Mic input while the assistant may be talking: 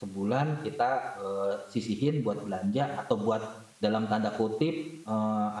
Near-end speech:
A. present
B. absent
A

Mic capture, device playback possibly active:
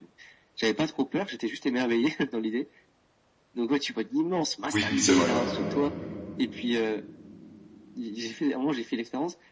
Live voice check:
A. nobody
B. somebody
B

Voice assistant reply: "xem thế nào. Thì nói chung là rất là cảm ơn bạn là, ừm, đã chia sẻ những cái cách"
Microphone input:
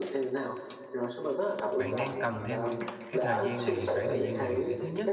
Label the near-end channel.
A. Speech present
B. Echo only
A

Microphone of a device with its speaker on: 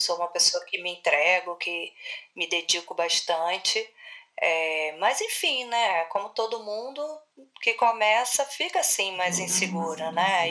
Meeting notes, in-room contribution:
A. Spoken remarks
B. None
A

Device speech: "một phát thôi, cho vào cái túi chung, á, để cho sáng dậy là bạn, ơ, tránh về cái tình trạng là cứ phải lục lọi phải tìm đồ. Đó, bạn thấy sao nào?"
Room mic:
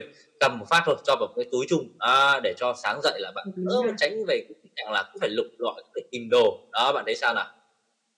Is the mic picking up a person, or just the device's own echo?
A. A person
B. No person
A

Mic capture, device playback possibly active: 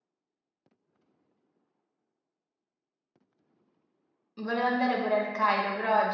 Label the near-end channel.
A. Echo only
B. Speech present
B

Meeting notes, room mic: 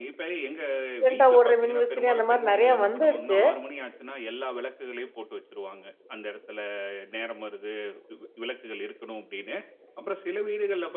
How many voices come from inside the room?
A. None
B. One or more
B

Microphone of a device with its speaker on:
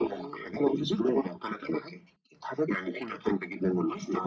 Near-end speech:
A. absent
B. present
A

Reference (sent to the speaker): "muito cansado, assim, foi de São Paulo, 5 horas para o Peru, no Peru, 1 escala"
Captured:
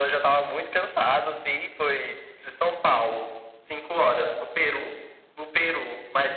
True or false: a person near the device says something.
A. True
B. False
B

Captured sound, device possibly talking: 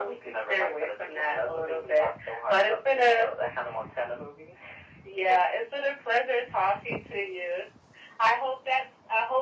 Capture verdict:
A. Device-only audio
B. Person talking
A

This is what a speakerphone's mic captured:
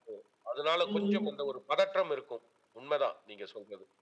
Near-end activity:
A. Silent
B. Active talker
B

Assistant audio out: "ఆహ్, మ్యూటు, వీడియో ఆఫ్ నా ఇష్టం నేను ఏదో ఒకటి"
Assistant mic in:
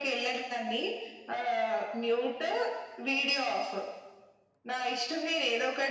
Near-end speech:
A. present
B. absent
B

